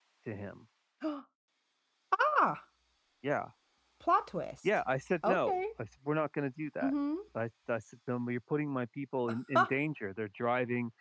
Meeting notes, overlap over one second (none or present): none